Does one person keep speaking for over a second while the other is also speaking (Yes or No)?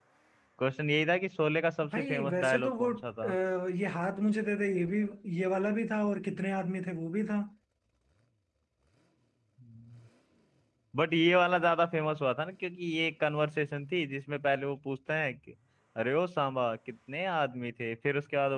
Yes